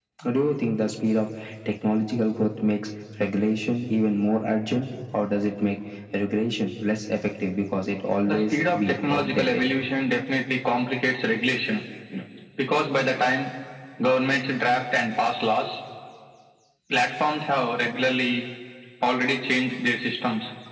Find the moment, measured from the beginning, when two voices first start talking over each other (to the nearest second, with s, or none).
8 s